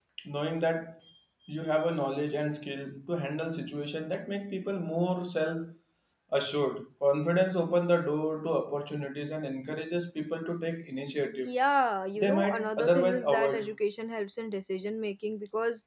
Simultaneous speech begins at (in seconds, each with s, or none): 12.2 s